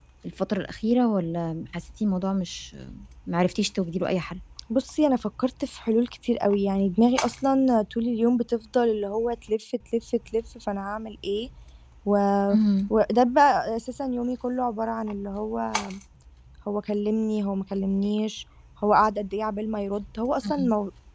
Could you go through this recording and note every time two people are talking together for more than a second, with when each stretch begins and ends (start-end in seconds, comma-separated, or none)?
none